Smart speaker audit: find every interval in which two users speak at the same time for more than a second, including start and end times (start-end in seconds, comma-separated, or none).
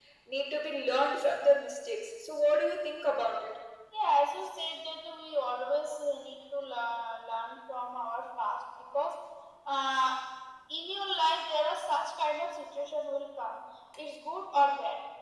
none